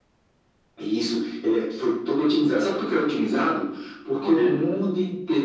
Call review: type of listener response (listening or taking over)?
listening